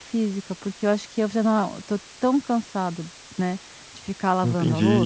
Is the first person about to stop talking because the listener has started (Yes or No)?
Yes